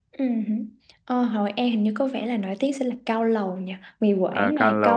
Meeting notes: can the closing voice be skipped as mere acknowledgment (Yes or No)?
No